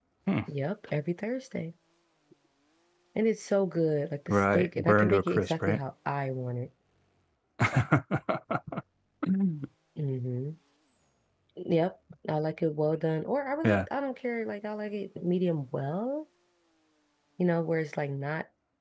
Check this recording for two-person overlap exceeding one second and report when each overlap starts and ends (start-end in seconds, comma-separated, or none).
4.3-5.8